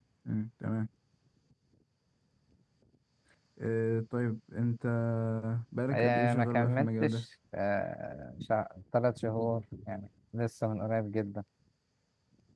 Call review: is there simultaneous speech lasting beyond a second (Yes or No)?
Yes